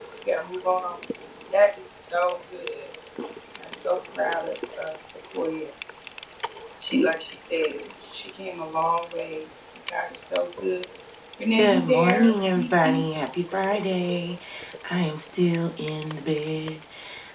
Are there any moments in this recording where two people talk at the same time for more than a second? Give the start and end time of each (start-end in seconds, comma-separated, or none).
11.5-13.0